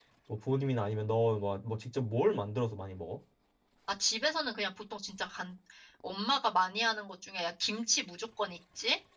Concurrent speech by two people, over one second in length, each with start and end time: none

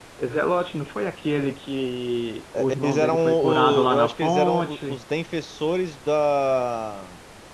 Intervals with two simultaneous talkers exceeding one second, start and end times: 2.5-5.0

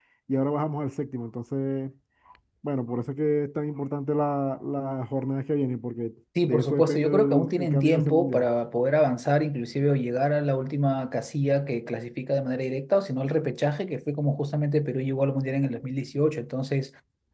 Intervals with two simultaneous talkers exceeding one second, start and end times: 6.5-8.5

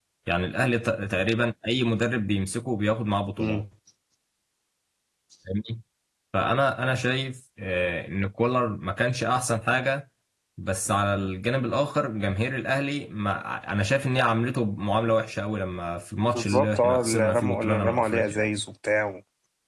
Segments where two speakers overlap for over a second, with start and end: 16.3-18.4

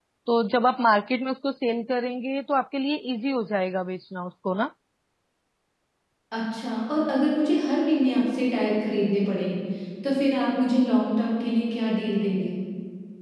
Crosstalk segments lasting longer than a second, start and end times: none

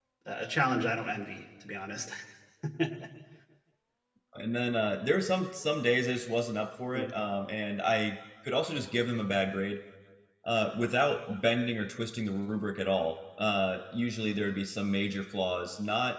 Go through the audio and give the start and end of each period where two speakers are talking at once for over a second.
none

